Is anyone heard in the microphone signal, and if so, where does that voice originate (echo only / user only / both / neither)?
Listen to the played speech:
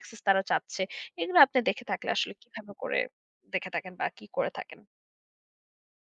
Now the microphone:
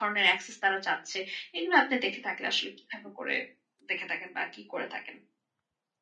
echo only